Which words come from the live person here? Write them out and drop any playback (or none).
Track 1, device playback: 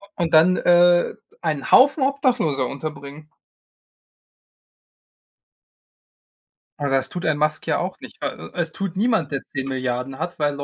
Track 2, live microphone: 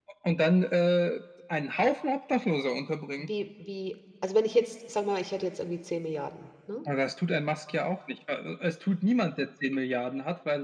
wie wie also, wenn ich jetzt sagen wir mal, ich hätte jetzt irgendwie 10.000.000.000 ne?